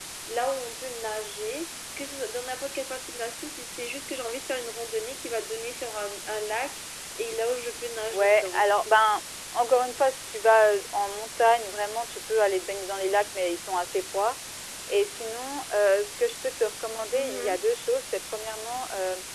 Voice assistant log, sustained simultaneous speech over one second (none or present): none